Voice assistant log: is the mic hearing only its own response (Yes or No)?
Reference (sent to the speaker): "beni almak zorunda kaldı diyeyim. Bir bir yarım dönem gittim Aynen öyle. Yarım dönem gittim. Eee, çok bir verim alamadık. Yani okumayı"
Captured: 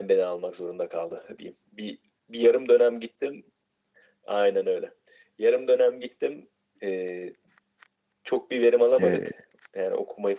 No